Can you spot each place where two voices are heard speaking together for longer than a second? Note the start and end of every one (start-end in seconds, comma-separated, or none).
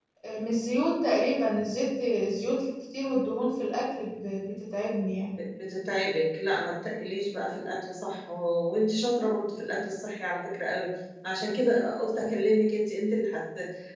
none